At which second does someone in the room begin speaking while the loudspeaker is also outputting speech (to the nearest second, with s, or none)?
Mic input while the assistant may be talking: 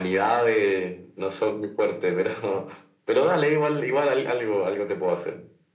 none